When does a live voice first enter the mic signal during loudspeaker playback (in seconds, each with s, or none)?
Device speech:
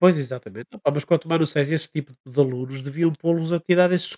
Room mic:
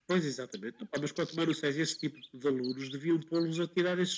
none